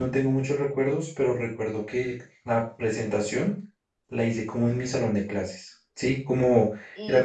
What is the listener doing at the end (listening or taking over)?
taking over